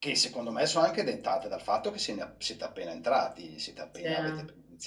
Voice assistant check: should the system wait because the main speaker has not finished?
Yes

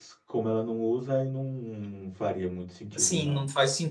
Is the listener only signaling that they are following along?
No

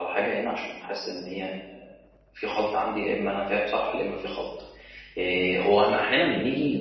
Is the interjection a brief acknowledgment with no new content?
Yes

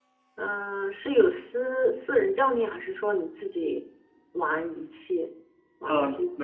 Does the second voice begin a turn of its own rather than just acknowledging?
Yes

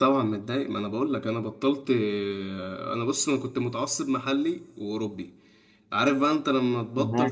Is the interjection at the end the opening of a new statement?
No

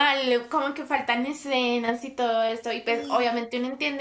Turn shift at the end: No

